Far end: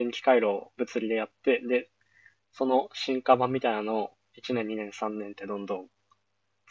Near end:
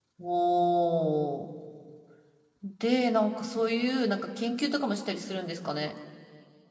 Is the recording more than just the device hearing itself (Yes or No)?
Yes